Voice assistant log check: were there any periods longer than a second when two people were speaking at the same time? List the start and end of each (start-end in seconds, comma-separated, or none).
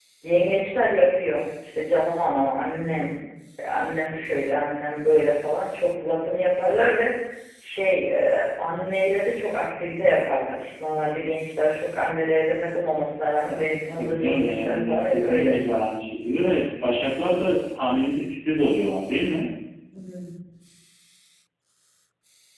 14.0-15.6